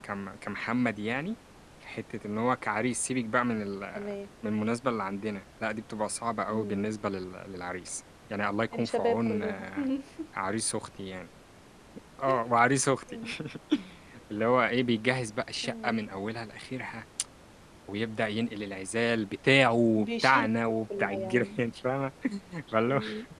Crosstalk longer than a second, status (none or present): present